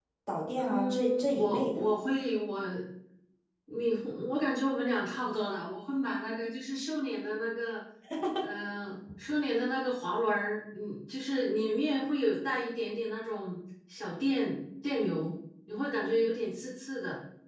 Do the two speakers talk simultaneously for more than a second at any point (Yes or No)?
Yes